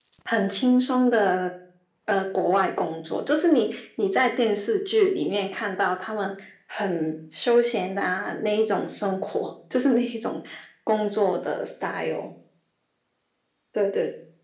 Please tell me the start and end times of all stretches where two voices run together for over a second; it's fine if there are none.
none

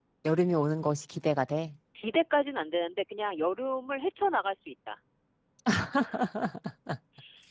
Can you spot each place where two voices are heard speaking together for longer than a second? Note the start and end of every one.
none

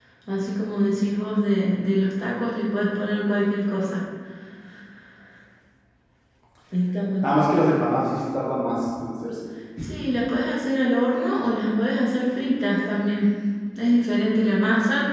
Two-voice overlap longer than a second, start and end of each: none

